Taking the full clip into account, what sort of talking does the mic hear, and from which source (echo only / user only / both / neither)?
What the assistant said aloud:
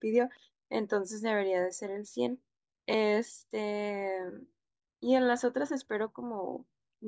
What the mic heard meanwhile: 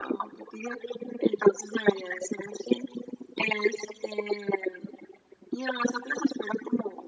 echo only